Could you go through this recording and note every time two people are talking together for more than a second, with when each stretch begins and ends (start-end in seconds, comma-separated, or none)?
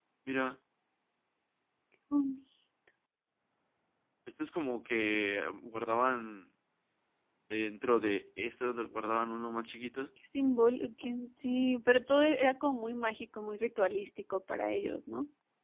none